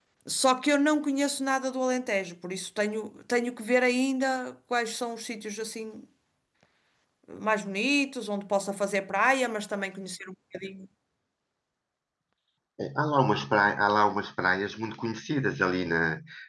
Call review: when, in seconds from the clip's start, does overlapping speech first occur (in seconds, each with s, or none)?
none